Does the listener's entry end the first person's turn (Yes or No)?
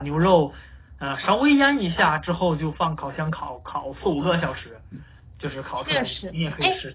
Yes